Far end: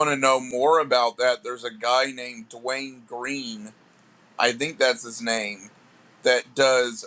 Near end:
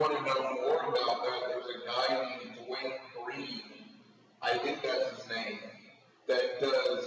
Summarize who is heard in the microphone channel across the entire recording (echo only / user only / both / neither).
echo only